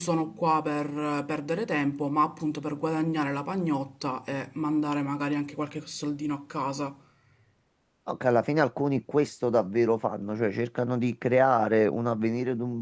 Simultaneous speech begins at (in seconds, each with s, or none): none